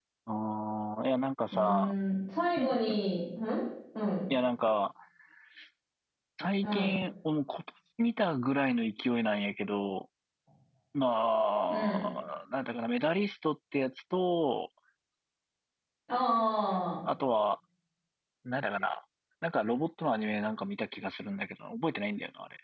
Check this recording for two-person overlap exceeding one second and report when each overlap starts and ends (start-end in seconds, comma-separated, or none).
none